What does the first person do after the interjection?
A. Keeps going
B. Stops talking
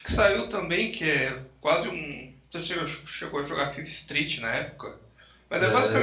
B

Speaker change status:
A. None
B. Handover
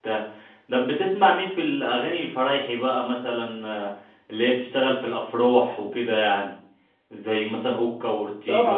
B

